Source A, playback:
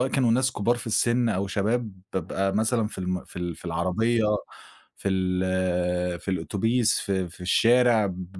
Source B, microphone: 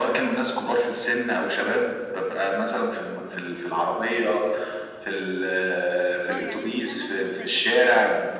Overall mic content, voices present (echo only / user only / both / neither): both